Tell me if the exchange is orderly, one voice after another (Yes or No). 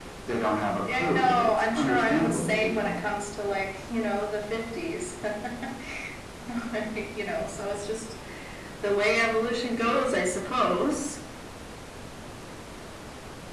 No